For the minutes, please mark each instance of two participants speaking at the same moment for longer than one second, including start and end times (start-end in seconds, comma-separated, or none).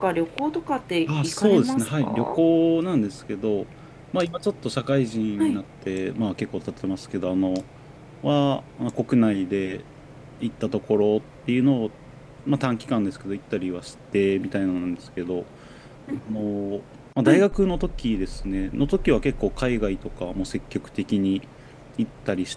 1.1-2.4